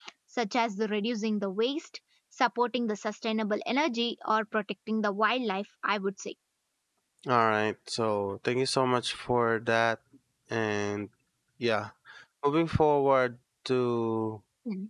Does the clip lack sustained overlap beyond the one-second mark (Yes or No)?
Yes